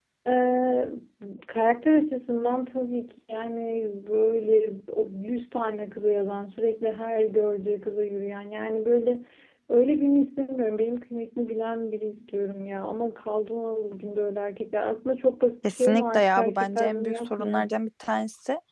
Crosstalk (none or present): present